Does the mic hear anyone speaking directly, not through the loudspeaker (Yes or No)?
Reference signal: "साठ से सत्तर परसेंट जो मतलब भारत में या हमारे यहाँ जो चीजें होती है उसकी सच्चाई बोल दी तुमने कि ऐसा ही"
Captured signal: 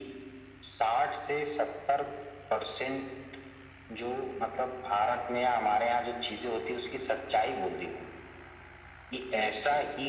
No